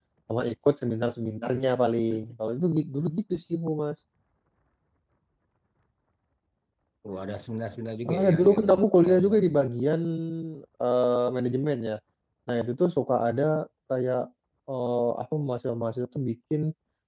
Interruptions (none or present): present